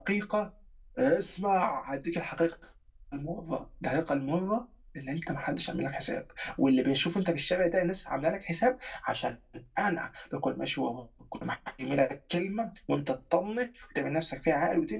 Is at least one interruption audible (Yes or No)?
No